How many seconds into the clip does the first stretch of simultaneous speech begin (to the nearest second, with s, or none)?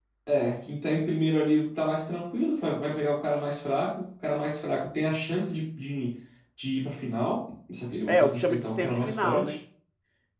8 s